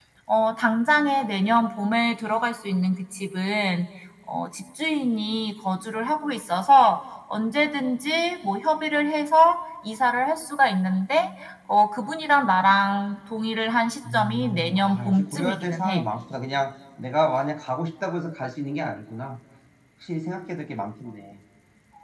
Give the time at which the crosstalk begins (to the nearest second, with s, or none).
14 s